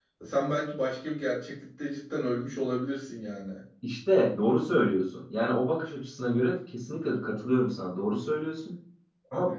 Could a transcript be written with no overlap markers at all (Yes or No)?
Yes